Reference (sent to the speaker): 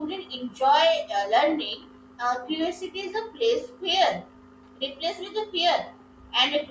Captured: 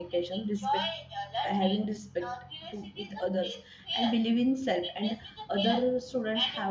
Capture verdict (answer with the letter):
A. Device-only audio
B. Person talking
B